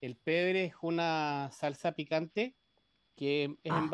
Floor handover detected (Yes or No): No